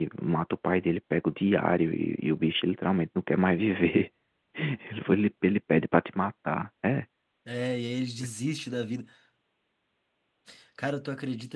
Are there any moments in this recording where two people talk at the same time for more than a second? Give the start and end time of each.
none

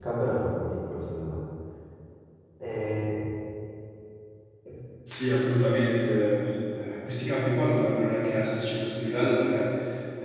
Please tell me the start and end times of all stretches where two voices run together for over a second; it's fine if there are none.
none

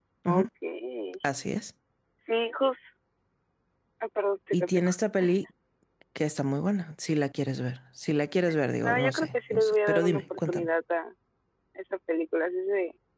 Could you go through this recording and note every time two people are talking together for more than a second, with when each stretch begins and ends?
8.8-10.7

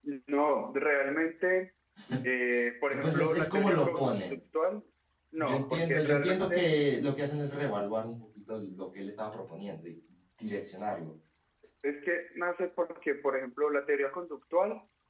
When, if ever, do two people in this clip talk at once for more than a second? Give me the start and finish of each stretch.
2.9-4.3, 5.4-6.7

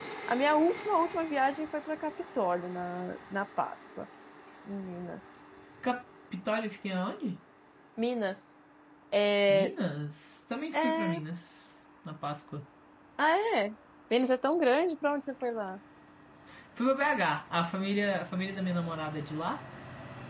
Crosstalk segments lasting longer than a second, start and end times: none

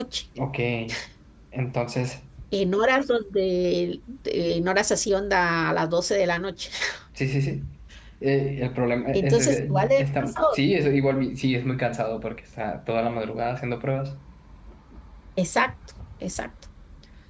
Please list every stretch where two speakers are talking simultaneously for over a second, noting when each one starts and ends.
9.2-10.6

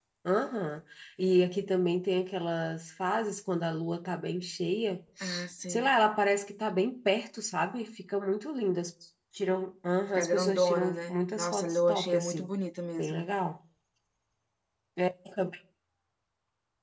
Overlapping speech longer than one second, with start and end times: 10.2-12.5

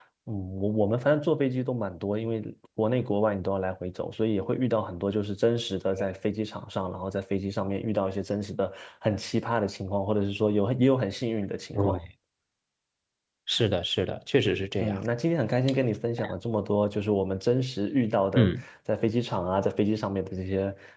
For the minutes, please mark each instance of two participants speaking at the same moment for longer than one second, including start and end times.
none

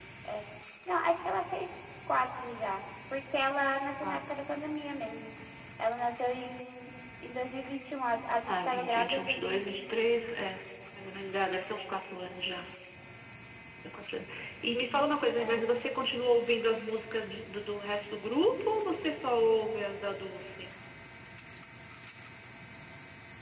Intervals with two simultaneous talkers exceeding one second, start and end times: 8.5-10.0

